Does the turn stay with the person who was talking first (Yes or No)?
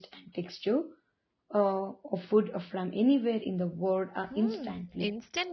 No